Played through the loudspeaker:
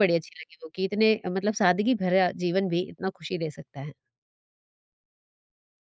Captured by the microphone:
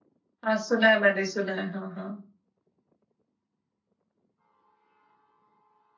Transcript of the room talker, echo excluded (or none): हाँ, सुना है मैंने, सुना है। हाँ, हाँ।